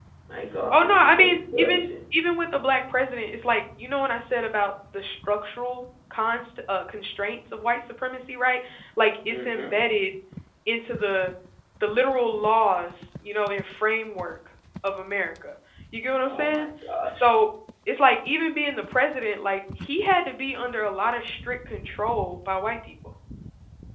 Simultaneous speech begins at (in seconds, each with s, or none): 0.7 s